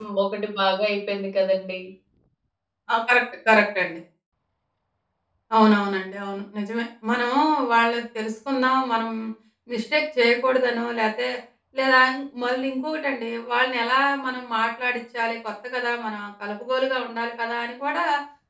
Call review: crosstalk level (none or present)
none